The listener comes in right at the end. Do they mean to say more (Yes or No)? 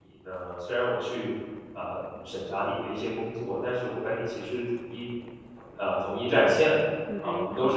No